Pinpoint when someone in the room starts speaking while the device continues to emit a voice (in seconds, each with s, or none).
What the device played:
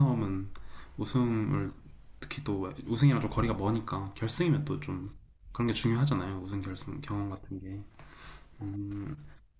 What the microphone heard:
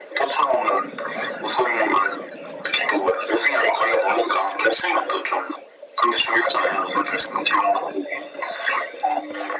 none